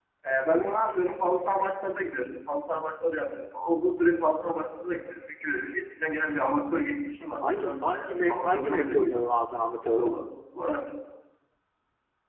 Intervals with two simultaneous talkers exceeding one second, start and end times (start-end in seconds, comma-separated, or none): 7.4-9.2